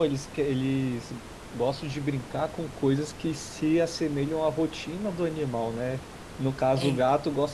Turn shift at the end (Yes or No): No